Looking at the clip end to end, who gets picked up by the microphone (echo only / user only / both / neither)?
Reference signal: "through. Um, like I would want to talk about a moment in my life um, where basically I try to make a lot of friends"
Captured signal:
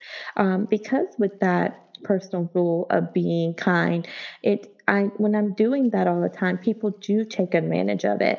user only